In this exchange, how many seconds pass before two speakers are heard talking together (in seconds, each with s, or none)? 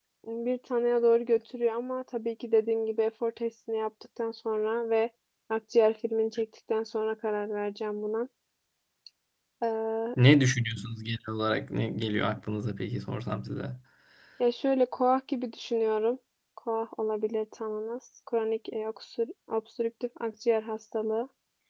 none